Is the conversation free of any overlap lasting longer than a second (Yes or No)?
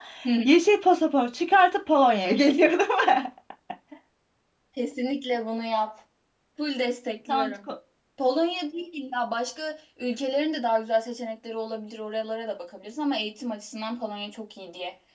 Yes